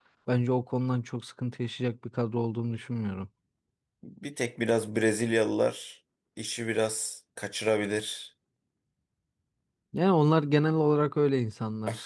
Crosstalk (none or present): none